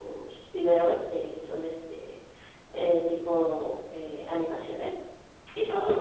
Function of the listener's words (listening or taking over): listening